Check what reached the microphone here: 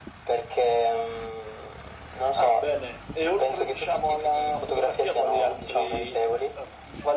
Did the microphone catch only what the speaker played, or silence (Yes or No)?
Yes